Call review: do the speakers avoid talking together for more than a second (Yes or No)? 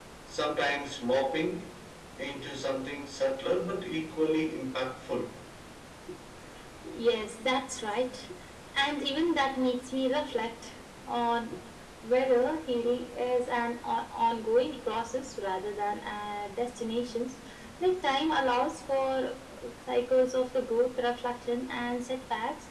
Yes